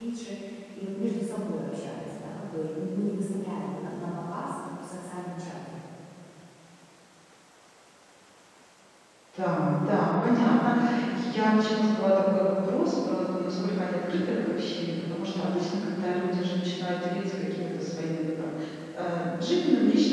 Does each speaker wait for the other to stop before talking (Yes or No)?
Yes